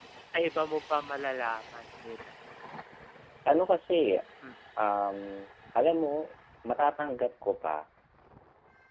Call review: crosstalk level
none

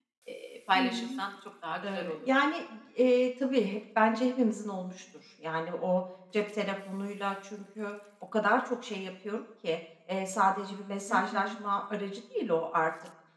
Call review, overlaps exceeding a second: none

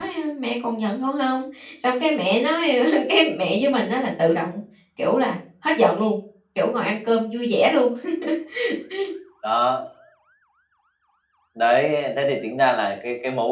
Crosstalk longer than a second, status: none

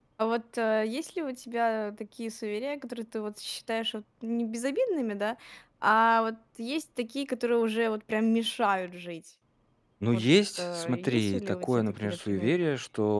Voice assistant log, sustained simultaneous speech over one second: present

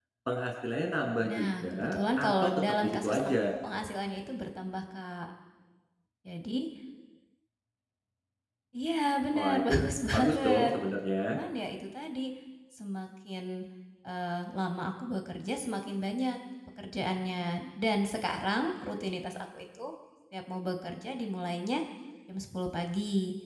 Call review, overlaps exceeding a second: present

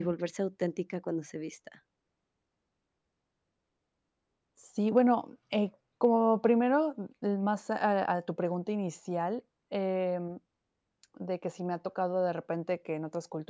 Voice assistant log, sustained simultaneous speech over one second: none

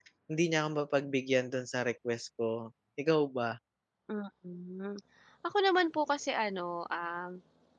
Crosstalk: none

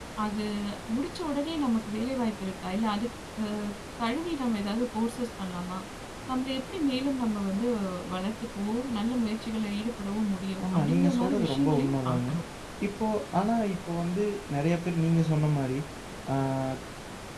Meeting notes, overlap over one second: present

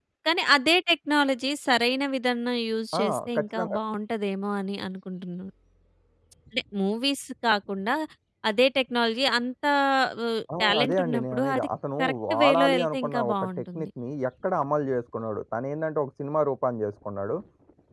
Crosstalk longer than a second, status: present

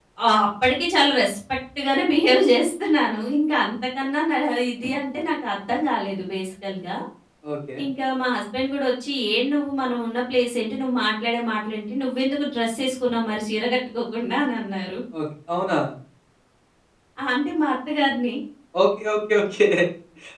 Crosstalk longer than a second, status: none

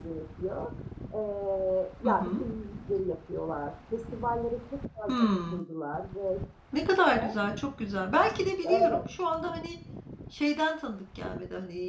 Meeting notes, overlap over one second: none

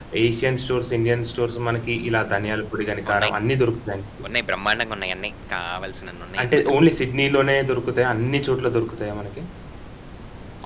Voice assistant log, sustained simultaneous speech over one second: none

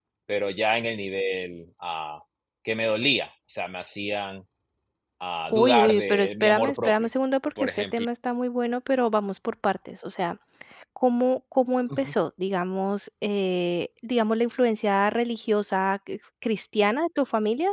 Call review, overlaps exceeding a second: present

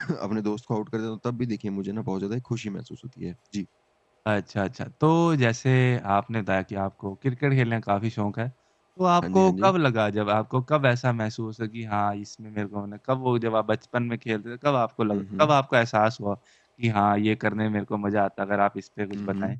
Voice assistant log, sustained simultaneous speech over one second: none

